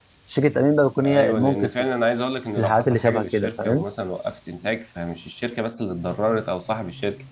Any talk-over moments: Yes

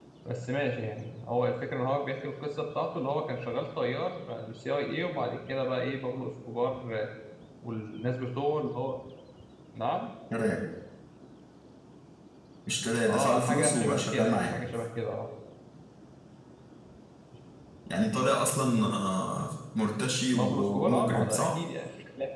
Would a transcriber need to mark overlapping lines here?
Yes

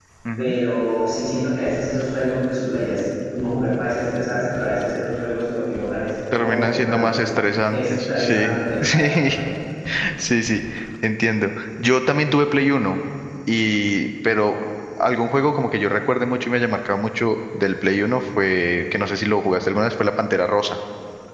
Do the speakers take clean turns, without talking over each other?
No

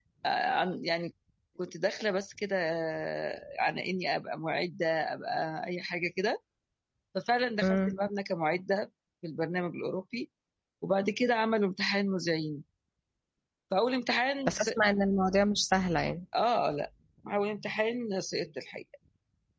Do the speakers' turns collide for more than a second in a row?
No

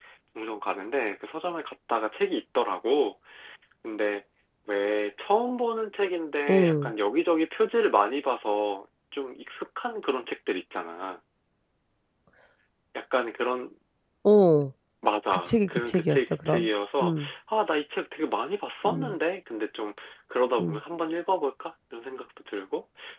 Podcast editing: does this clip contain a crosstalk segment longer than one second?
Yes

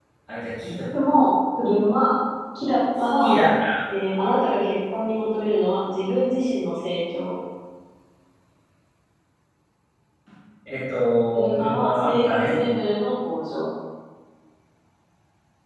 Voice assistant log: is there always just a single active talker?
No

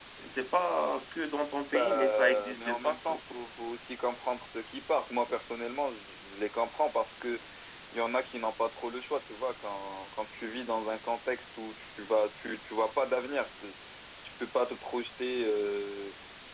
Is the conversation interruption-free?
No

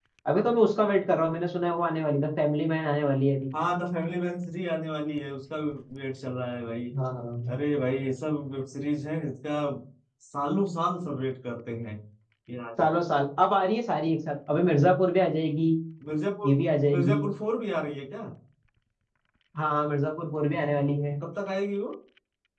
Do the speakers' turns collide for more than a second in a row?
No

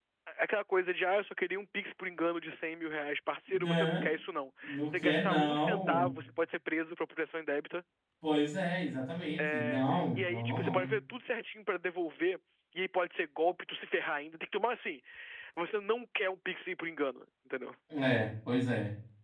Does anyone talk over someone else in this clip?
Yes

